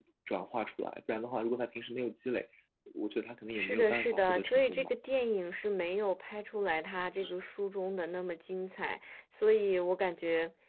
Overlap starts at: 3.5 s

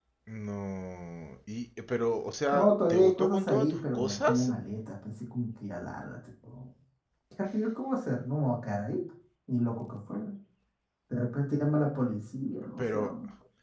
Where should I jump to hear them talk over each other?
2.5 s

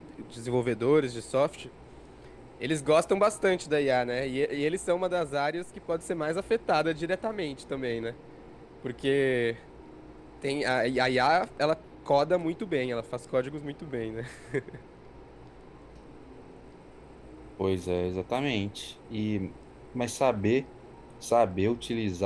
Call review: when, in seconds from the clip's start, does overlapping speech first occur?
none

